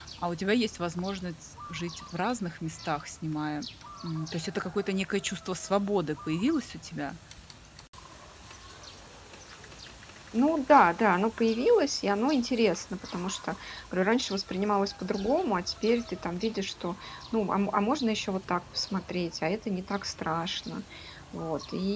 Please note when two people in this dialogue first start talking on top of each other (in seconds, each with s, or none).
none